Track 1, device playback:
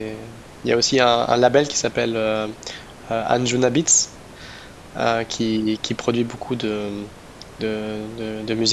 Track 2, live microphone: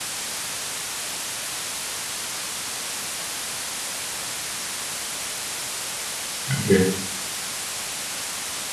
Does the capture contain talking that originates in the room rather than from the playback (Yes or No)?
Yes